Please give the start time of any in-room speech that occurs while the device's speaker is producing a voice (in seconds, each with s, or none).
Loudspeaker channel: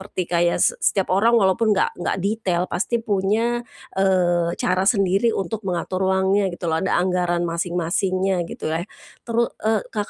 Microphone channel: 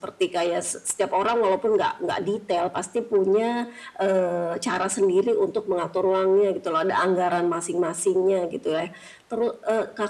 none